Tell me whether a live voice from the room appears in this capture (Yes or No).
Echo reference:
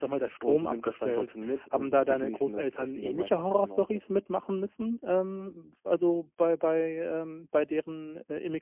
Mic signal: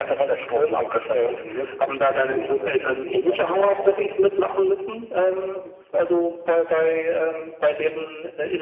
No